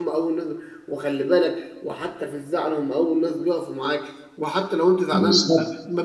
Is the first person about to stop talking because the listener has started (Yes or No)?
No